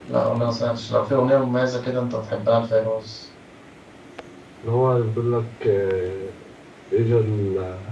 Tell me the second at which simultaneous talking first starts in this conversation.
none

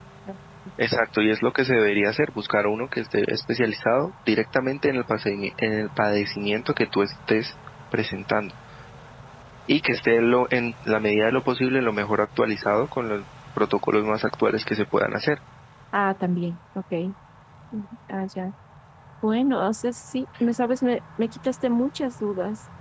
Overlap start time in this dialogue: none

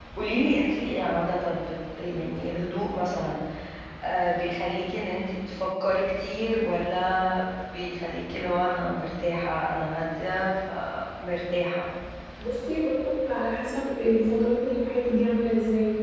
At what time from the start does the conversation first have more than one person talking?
none

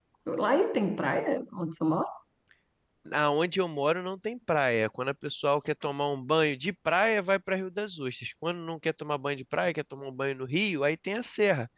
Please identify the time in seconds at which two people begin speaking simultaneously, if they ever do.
none

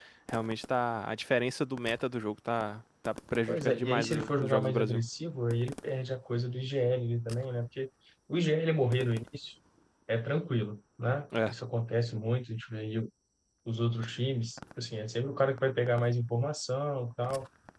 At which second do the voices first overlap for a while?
3.5 s

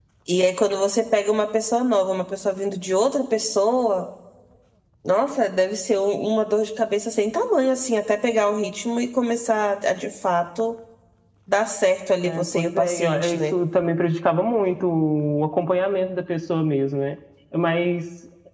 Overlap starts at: 12.2 s

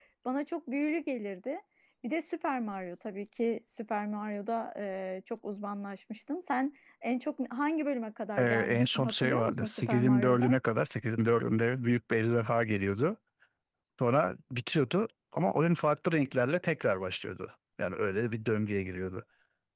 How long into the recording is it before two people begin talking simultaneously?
8.4 s

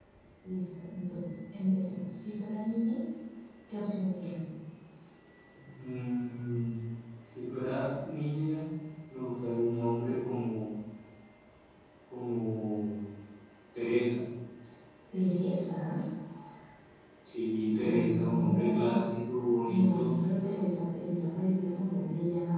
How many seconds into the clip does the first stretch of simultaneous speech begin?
17.8 s

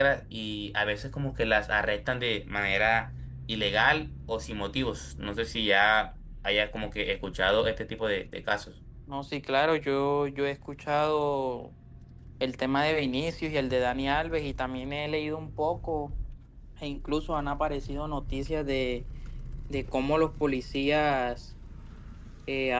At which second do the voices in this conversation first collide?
none

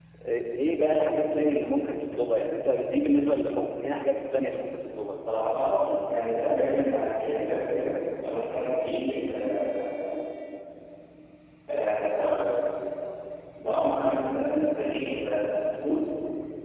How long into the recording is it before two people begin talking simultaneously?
none

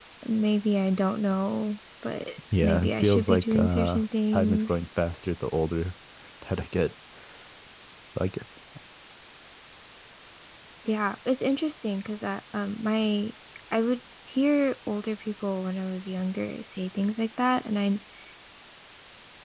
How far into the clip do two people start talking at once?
2.6 s

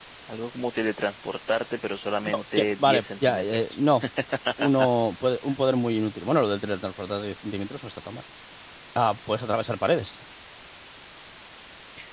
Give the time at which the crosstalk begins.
2.2 s

